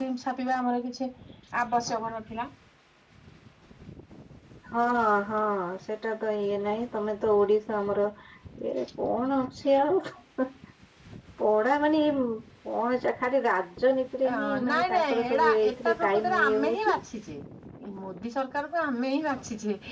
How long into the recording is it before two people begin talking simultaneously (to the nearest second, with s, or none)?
14 s